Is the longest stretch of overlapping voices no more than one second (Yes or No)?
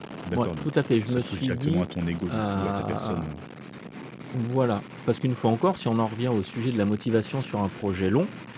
No